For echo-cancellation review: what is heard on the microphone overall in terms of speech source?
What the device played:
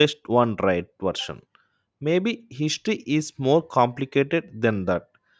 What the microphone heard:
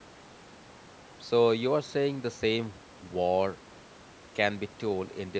user only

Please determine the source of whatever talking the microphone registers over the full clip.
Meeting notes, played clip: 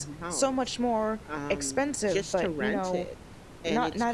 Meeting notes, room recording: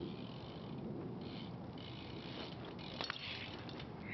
neither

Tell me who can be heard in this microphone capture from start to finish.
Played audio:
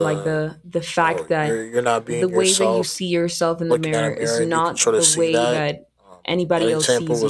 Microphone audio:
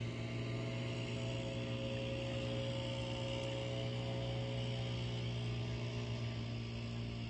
neither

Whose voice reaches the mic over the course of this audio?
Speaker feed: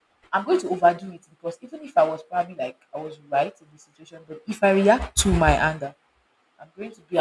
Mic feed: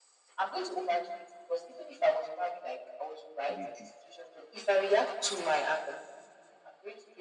both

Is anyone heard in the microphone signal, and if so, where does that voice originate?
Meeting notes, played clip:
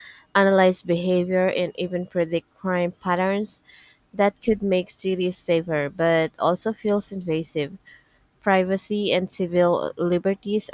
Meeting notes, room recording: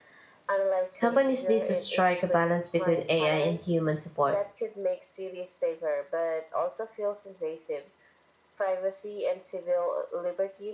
both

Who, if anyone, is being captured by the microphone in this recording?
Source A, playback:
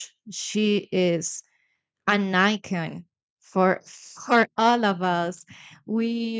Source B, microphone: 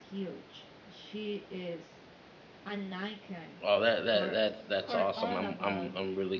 both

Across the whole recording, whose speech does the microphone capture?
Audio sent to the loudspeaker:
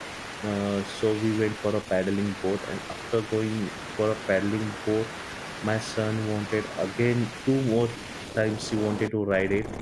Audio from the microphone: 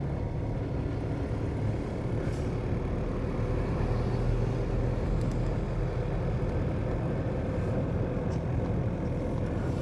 neither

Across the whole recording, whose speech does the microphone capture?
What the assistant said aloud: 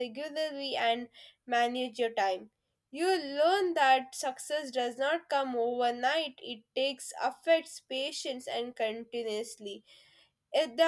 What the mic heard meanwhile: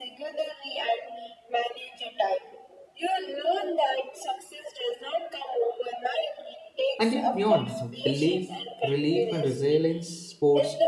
both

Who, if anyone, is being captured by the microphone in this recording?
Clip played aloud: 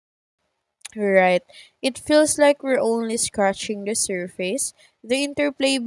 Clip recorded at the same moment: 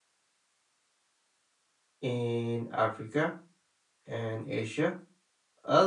user only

